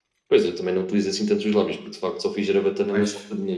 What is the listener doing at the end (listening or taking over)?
listening